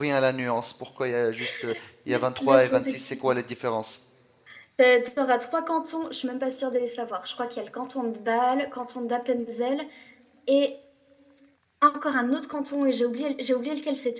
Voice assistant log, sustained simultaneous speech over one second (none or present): present